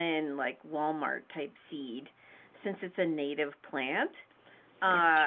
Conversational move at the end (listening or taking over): listening